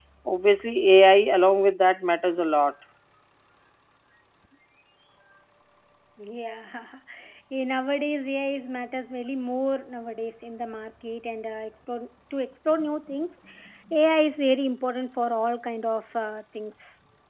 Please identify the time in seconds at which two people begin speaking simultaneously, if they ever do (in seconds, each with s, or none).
none